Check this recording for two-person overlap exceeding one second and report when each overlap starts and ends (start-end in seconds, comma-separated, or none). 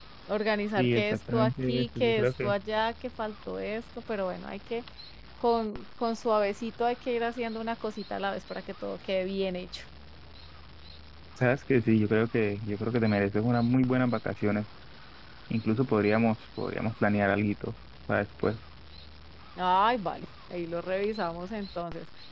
0.8-2.5